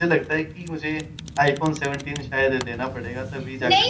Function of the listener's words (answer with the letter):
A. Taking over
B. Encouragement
A